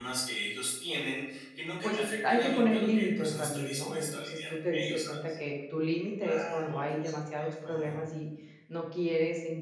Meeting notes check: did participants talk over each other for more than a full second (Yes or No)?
Yes